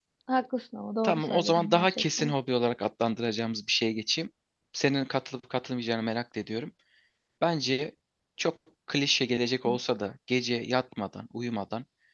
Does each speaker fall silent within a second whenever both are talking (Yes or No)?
No